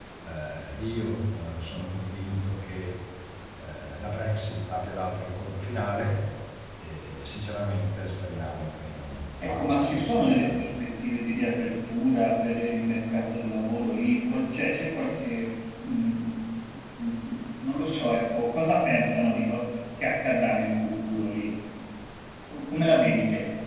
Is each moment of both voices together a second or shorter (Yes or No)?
No